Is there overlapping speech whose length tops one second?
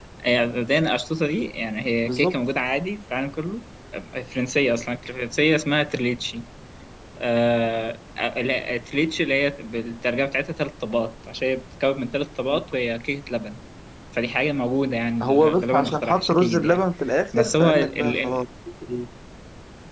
Yes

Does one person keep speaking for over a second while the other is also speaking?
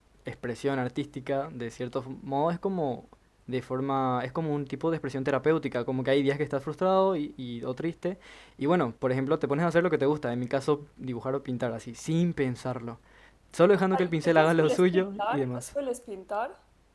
Yes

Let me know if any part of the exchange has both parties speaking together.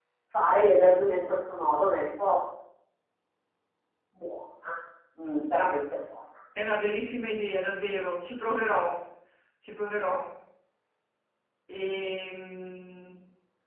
No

